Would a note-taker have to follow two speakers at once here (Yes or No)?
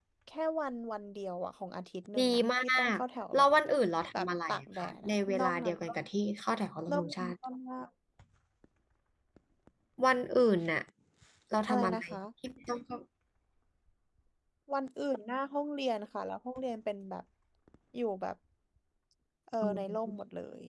Yes